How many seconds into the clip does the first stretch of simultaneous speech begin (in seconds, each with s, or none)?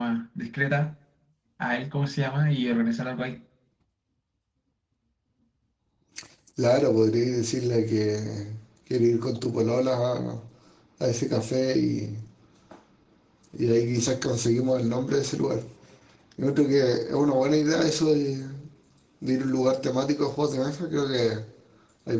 none